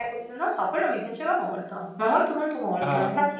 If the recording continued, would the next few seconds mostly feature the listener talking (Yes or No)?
Yes